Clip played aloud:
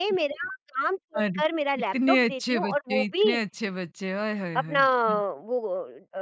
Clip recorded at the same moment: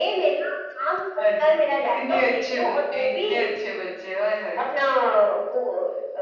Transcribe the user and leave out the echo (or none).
none